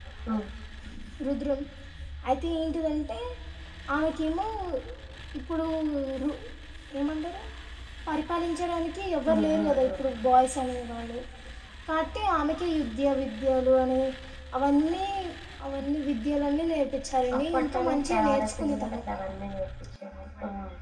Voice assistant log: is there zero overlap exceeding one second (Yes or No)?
No